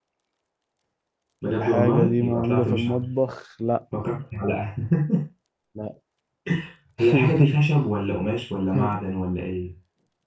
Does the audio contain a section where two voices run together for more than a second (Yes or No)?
Yes